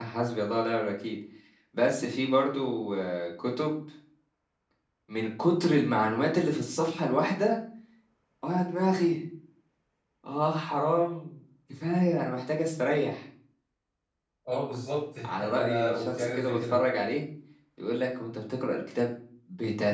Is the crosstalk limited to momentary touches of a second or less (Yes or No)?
No